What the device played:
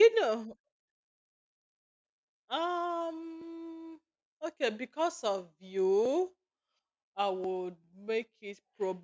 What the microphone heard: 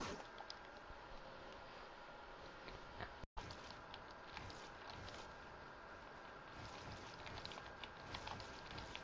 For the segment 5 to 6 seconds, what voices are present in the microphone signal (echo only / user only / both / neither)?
neither